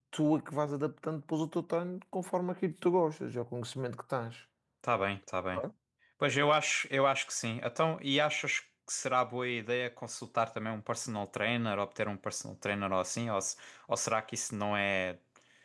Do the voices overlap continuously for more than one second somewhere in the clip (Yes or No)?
No